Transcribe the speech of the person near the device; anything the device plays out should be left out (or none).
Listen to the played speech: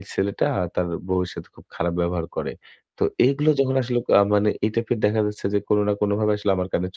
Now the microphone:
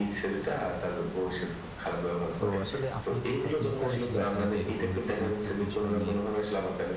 তো আসলে আপনি কি কখনো করেছিলেন কিনা যে এরকম হয়তো কোনো একটা বিষয় নিয়ে